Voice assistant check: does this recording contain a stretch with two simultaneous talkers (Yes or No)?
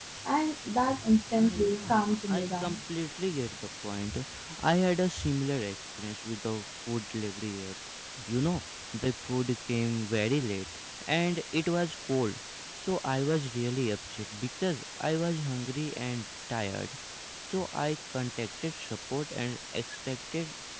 Yes